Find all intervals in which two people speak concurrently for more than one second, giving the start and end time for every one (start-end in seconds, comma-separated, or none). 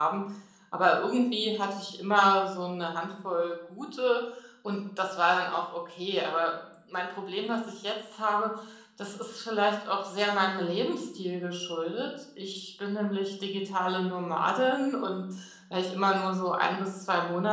none